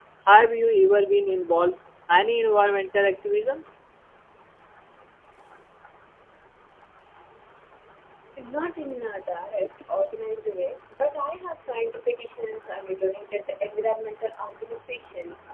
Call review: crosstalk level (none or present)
none